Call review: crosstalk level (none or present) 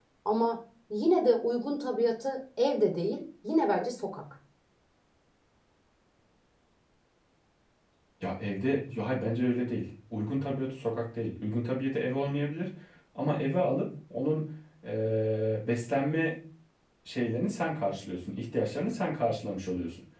none